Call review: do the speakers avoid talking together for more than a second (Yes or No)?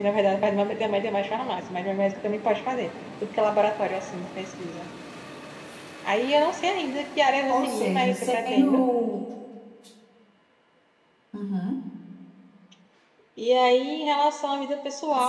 No